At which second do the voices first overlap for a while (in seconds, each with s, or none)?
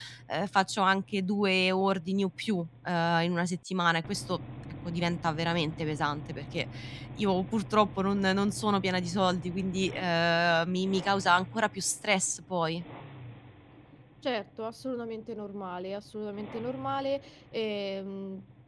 none